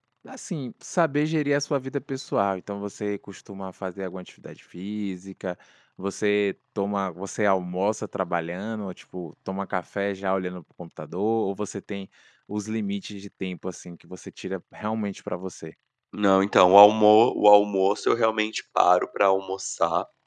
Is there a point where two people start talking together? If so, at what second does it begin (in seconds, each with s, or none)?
none